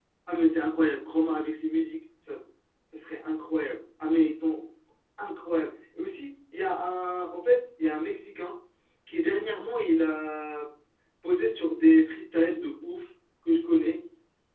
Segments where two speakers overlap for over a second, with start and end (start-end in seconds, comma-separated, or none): none